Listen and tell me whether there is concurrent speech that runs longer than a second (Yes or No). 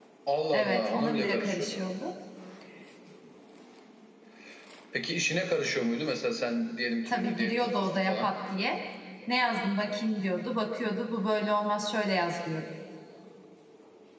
Yes